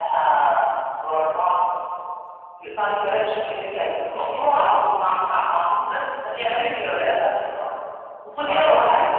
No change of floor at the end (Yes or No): Yes